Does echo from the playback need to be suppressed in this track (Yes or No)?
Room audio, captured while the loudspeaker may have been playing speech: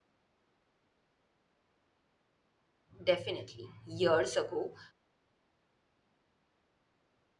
No